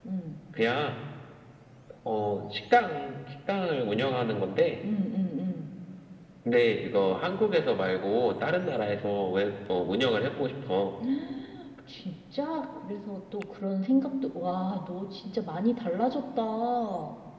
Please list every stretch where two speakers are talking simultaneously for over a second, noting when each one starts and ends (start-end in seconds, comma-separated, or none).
none